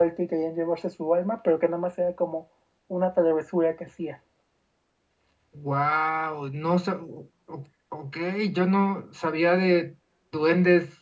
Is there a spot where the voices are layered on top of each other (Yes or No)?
No